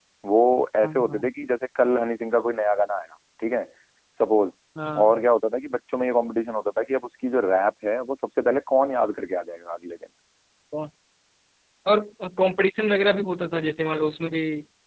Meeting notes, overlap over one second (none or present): none